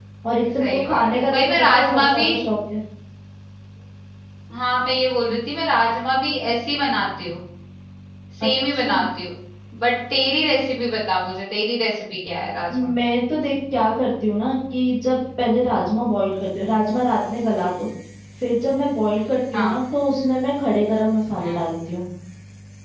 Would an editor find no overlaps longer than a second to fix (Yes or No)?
No